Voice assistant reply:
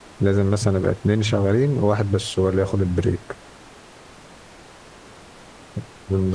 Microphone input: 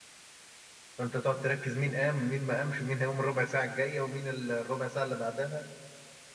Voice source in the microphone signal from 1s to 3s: user only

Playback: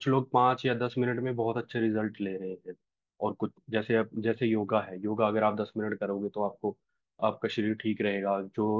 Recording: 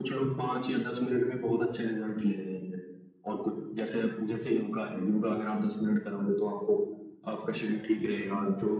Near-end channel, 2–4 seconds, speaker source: echo only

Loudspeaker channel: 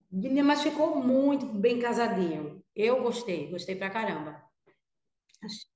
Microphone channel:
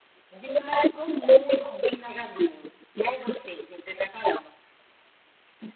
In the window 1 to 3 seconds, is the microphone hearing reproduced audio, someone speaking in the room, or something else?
echo only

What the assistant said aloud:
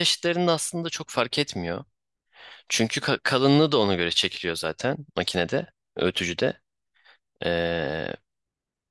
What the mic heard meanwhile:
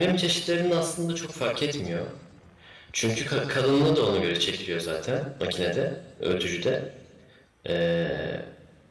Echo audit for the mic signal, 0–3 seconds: echo only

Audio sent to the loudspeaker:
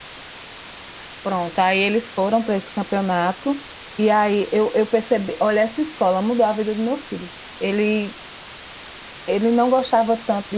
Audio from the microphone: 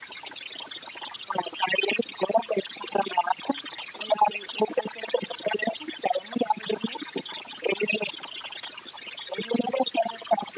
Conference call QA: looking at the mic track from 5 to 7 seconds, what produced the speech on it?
echo only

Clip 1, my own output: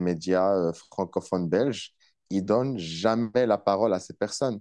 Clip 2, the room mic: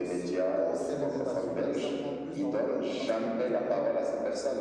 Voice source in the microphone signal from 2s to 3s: both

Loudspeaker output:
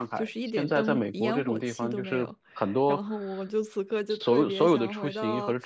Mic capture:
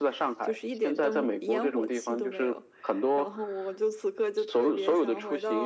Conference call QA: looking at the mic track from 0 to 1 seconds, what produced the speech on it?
echo only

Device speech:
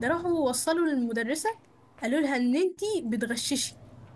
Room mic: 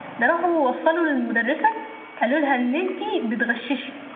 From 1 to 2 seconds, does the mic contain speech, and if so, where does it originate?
echo only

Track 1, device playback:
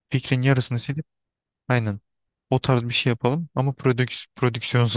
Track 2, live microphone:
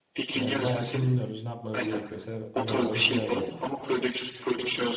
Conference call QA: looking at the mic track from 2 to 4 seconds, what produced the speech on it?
both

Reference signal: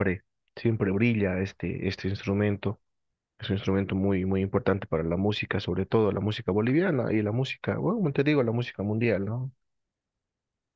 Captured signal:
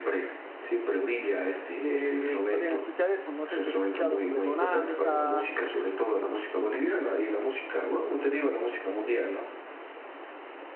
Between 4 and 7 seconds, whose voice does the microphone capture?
both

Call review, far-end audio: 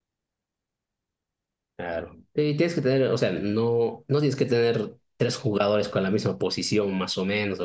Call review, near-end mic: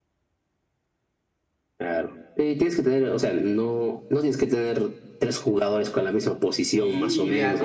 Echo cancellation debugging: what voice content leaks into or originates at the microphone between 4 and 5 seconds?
echo only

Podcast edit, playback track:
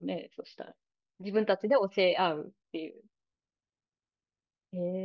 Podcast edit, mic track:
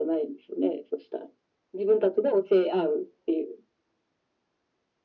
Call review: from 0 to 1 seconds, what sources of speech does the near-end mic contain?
echo only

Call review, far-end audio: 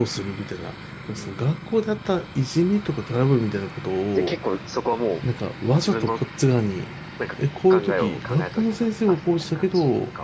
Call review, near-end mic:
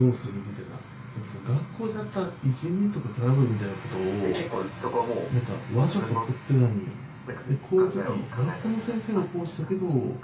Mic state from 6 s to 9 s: echo only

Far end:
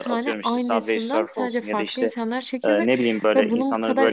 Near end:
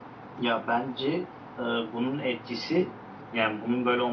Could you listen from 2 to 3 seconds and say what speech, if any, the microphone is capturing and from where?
user only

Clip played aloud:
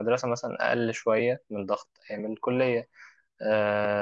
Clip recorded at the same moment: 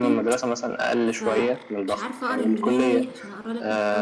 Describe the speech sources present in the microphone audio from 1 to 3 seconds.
both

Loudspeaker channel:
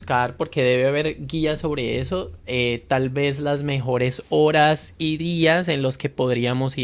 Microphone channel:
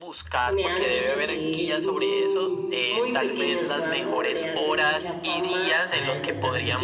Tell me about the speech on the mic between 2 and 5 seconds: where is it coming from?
both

